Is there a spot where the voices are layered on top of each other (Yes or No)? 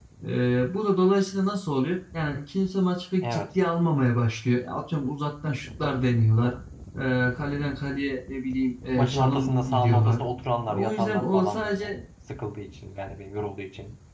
Yes